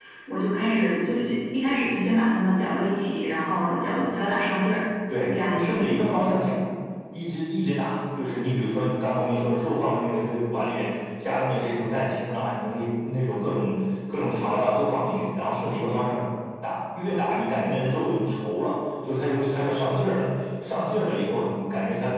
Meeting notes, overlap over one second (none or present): present